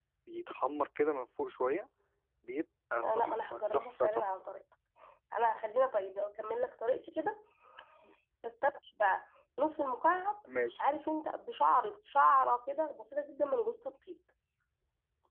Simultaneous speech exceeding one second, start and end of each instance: 3.0-4.3

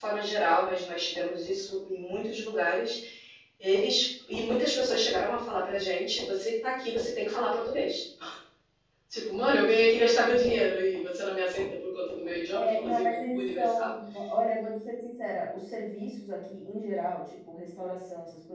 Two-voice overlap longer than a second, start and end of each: 12.5-13.9

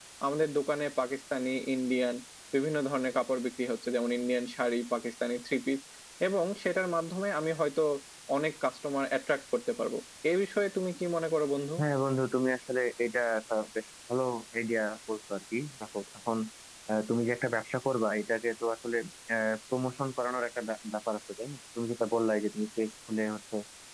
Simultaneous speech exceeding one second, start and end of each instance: none

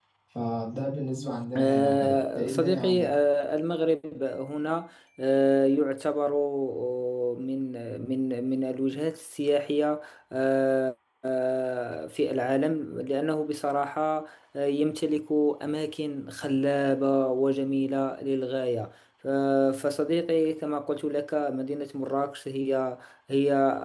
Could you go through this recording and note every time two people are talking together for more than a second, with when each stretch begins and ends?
1.6-3.1

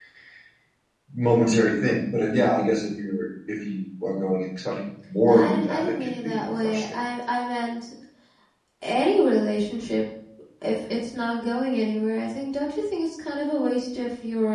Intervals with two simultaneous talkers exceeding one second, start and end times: 5.3-7.0

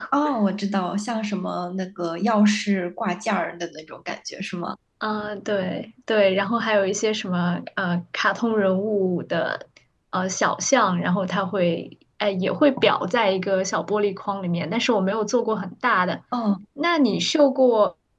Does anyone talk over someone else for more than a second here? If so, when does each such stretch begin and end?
none

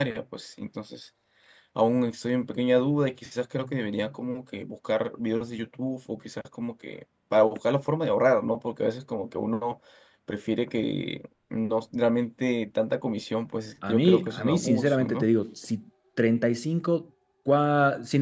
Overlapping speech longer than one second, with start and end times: 13.9-15.3

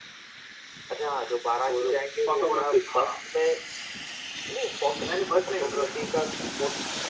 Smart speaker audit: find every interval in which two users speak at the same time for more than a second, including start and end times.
1.7-3.1

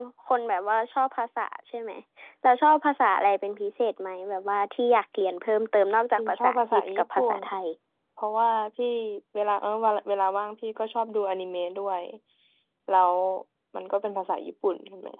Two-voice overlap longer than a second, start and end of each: 6.2-7.4

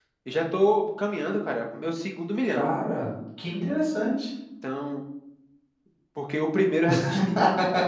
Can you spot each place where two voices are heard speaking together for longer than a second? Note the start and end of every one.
none

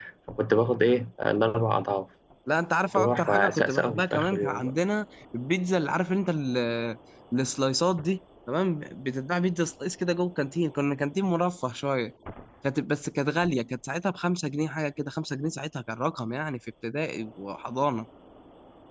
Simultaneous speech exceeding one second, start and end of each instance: 2.9-4.7

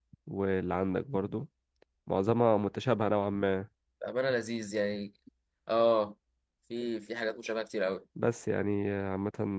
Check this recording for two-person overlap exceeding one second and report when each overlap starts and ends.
none

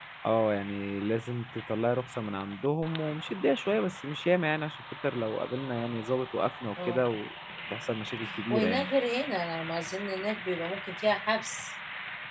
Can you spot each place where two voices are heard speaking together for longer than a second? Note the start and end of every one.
none

